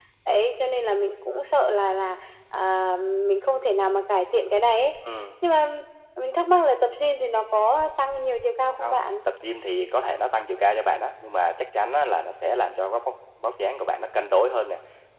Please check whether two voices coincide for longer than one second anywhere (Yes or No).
No